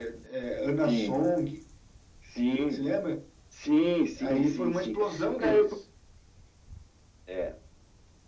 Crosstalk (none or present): present